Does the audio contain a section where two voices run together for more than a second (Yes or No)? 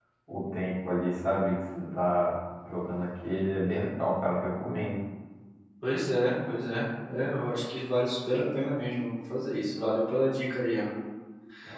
No